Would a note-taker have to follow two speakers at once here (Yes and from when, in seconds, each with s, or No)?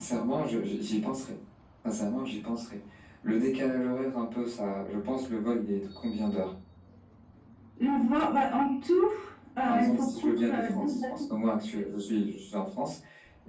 Yes, from 9.7 s